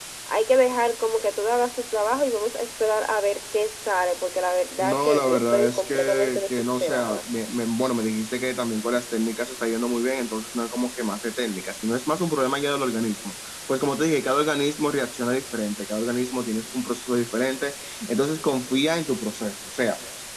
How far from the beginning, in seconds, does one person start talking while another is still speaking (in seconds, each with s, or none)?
4.8 s